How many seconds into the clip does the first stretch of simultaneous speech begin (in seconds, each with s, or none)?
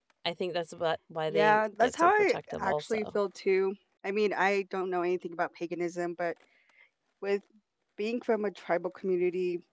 1.3 s